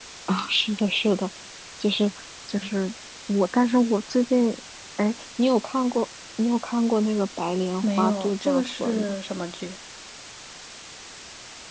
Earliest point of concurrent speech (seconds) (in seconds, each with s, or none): 7.8 s